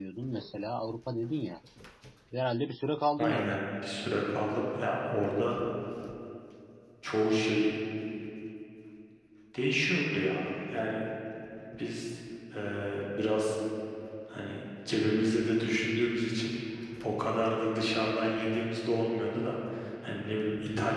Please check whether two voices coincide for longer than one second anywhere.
No

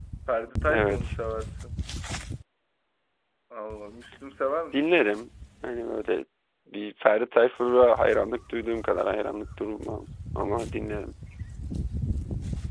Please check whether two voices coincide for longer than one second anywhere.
No

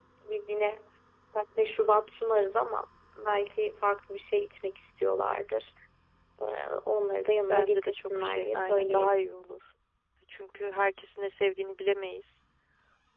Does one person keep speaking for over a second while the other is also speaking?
Yes, from 7.5 s

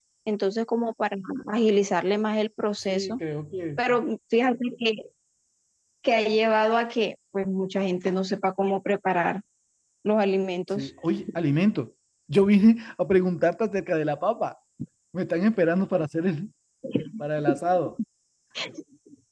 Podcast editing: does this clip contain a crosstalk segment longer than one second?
No

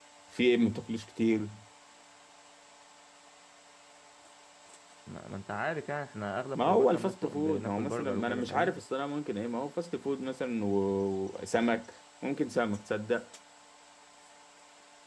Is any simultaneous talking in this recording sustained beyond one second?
Yes, from 6.6 s

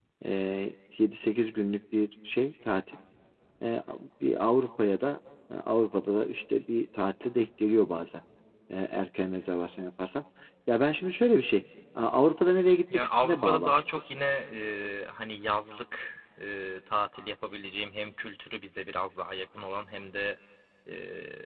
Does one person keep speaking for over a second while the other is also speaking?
Yes, from 12.9 s

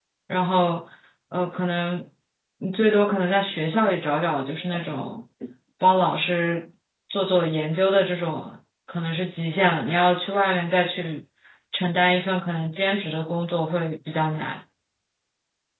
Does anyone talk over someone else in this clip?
No

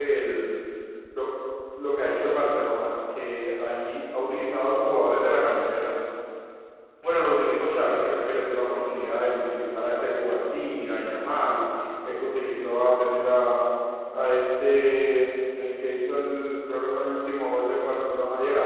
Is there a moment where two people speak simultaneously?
No

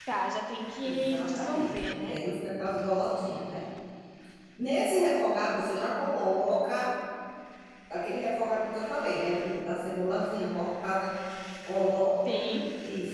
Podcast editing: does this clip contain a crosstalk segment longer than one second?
Yes, from 0.8 s

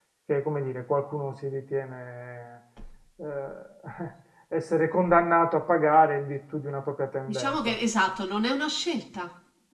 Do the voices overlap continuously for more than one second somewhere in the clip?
No

